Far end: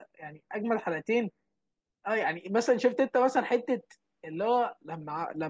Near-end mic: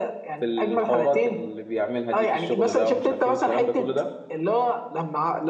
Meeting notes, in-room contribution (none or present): present